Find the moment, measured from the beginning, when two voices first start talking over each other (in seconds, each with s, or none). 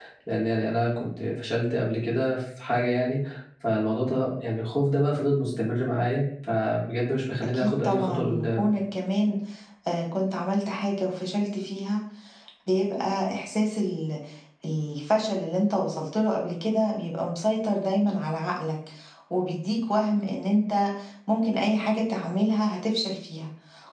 7.4 s